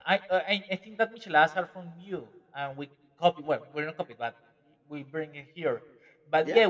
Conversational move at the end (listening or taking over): taking over